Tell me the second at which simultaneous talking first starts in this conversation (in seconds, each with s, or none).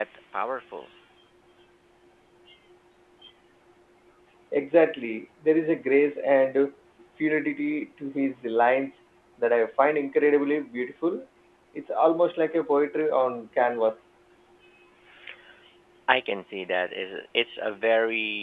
none